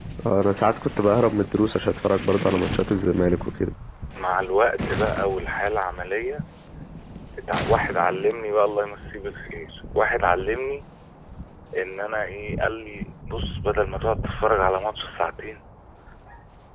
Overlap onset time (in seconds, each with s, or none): none